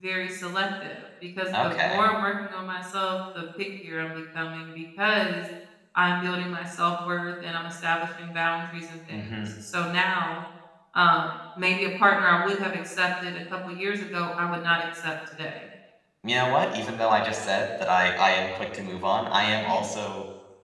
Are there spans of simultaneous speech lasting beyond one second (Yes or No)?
No